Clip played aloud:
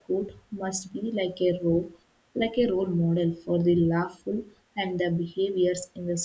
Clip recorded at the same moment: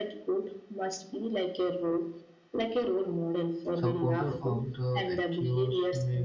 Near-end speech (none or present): present